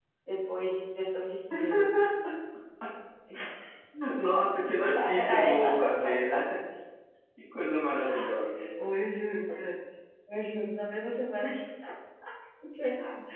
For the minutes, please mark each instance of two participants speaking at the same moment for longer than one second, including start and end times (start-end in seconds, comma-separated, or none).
4.9-6.2